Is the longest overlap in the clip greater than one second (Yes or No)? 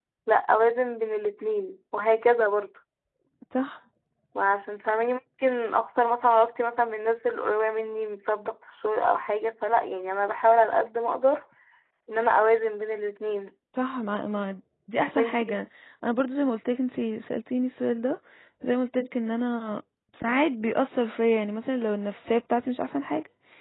No